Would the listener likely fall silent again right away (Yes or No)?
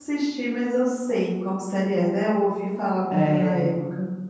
No